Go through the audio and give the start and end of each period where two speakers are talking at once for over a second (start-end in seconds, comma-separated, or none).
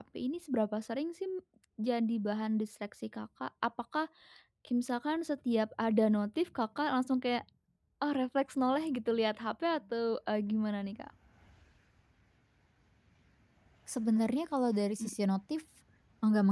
none